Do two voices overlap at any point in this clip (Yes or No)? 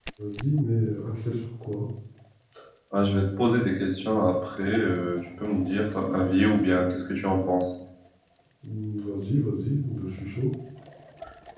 No